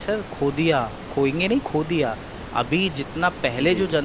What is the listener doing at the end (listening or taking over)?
listening